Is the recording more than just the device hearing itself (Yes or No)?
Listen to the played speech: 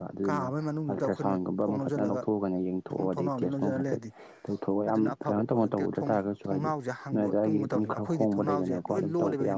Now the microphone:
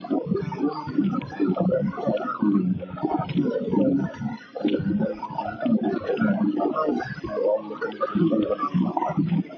No